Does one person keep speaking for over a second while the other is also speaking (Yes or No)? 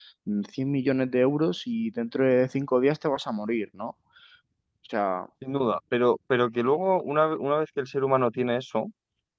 No